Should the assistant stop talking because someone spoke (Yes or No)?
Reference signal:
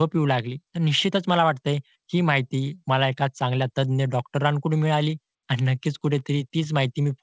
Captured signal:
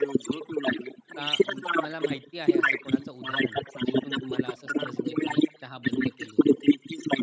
Yes